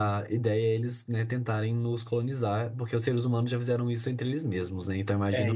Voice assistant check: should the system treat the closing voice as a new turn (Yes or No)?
Yes